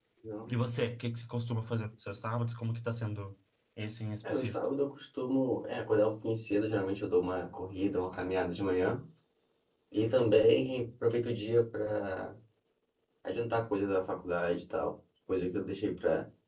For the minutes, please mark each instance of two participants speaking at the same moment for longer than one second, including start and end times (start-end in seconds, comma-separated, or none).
none